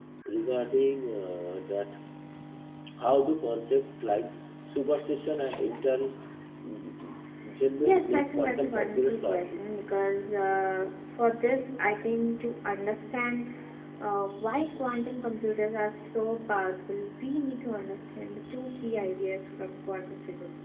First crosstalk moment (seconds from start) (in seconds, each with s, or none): 8.1 s